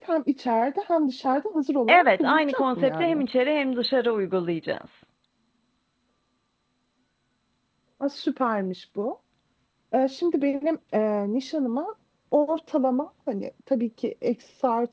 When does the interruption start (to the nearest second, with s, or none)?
2 s